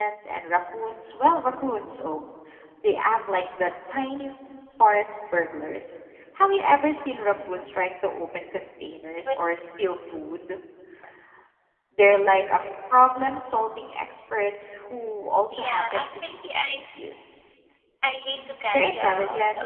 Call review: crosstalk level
present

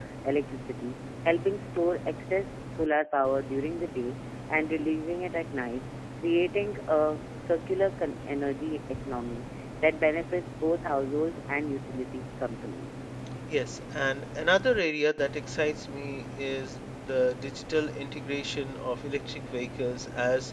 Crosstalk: none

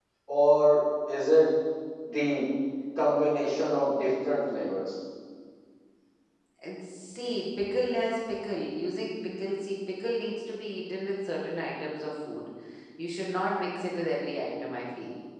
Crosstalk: none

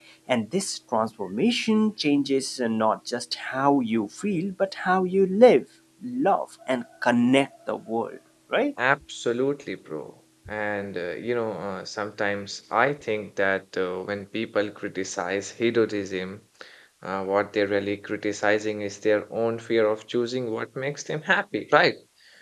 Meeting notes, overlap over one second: none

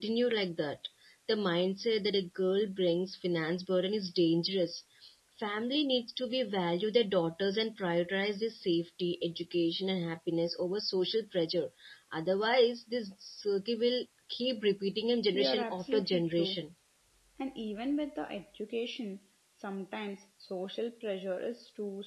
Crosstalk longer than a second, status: present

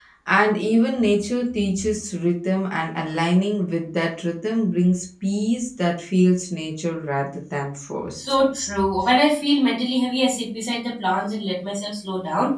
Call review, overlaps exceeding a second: none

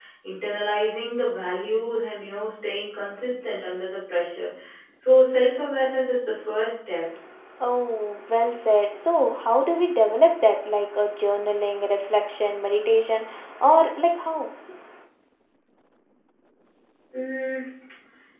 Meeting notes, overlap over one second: none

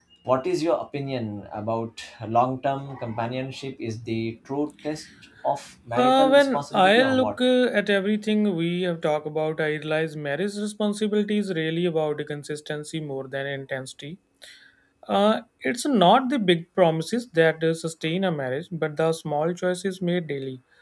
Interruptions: present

